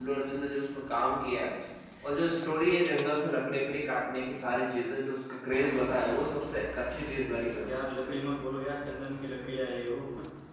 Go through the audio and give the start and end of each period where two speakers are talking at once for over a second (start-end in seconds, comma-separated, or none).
none